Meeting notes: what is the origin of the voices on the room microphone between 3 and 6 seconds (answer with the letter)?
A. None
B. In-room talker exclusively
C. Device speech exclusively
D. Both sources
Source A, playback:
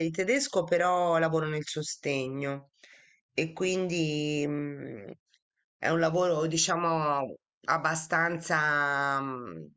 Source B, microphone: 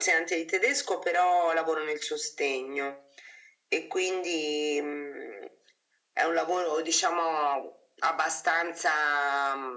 C